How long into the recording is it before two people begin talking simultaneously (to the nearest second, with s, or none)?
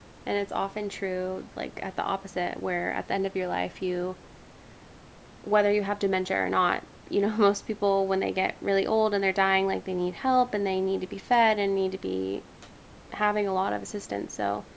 none